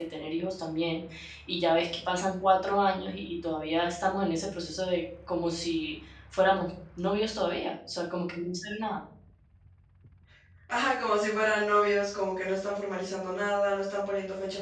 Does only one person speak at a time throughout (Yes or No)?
Yes